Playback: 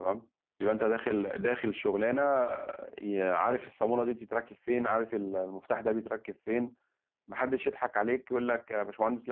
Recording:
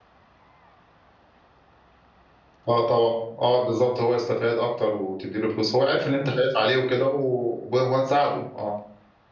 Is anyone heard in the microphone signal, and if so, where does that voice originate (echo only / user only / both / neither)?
user only